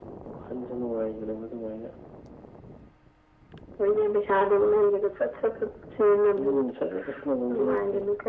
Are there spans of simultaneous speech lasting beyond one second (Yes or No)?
No